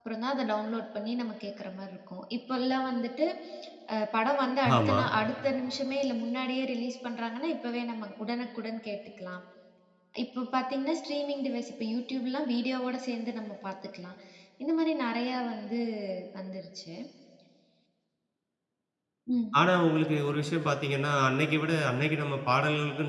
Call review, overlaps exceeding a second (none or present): none